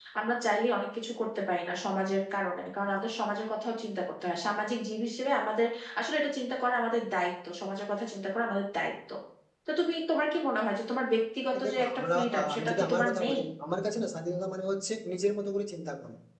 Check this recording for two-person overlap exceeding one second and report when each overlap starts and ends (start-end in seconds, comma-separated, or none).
11.5-13.4